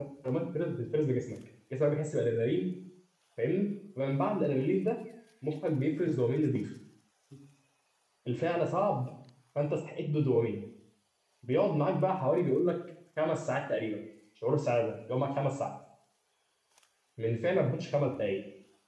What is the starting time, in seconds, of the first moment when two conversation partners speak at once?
none

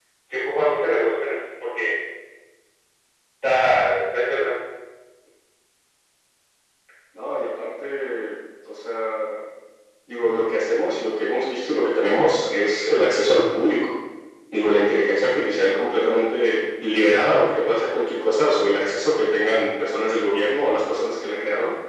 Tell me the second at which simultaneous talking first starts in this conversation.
none

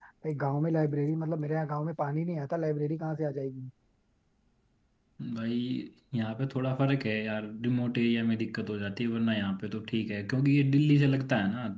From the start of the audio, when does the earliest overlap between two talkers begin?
none

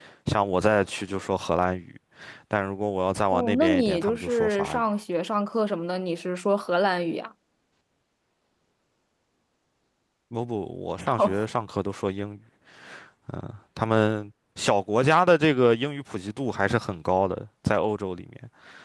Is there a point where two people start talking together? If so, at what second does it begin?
3 s

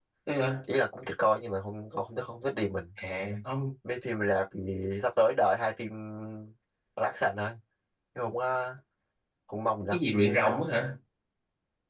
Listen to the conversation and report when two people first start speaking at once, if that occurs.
none

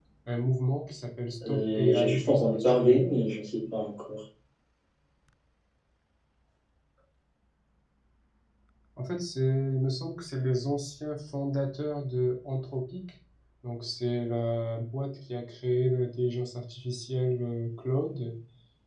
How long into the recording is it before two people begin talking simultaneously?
1 s

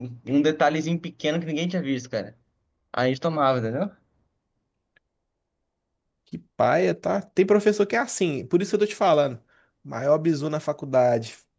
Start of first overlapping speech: none

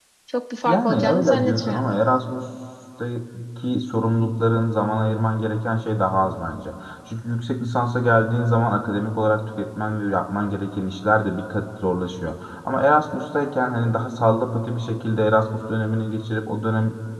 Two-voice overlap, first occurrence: 1 s

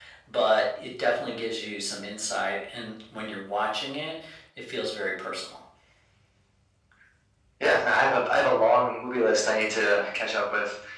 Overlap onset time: none

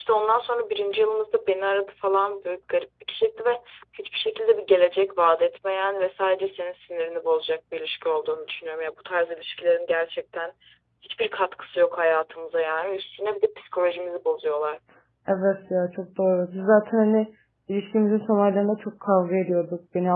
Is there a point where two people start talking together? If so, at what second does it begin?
none

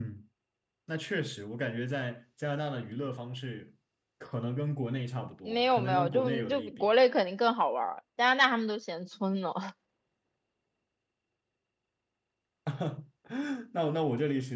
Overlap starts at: 5 s

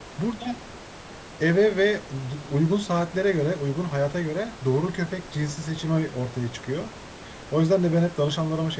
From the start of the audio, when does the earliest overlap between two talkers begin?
none

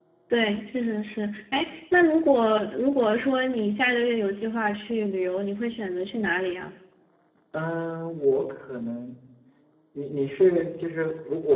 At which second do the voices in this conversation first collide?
none

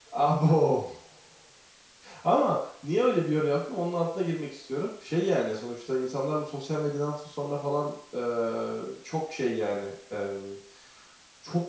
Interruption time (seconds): none

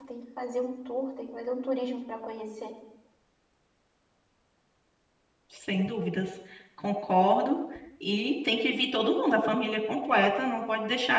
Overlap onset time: none

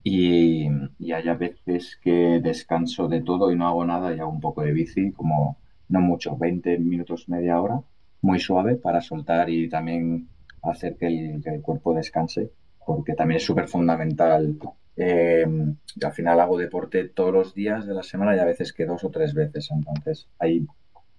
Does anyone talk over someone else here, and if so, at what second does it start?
none

